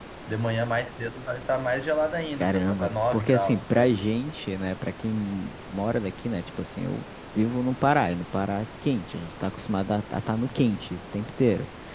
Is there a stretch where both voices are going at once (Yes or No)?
Yes